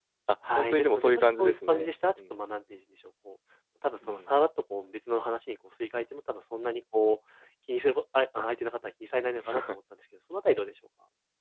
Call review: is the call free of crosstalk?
No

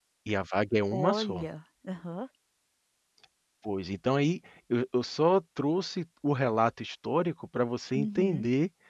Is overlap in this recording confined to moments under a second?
Yes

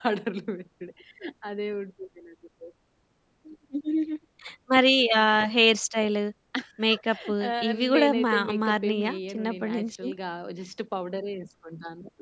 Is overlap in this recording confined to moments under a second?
No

